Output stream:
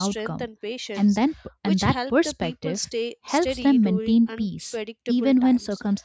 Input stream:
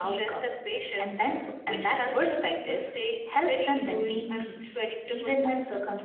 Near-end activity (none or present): none